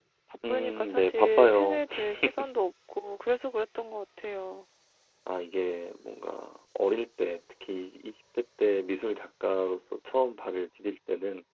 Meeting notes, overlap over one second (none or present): present